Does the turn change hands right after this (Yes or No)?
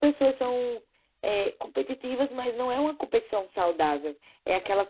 No